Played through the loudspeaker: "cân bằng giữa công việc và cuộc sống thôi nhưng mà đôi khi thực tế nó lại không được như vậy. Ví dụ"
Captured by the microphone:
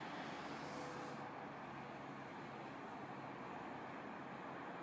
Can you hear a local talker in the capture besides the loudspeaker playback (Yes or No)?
No